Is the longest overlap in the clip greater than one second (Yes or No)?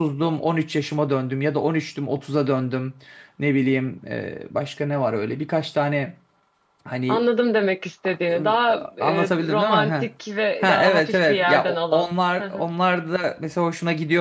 Yes